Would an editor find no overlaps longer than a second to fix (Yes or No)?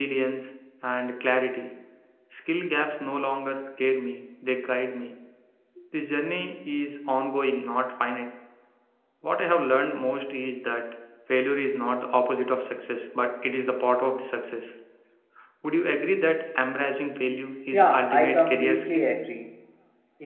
No